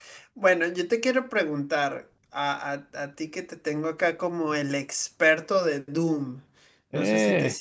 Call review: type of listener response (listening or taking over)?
listening